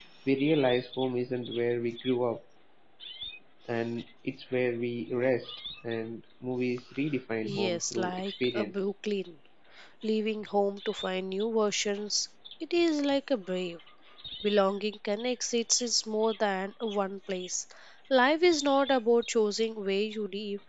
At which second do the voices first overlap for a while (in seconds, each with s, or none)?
7.4 s